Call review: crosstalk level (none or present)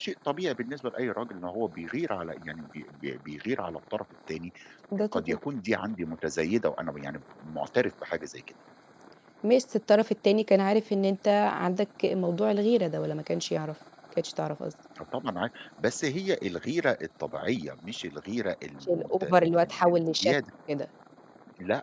present